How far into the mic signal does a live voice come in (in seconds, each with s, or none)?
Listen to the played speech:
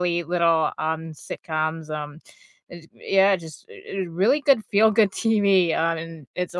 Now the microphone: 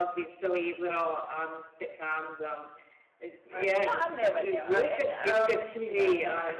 3.5 s